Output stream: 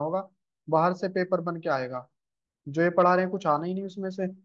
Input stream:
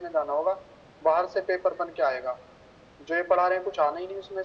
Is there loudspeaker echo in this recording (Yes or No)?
Yes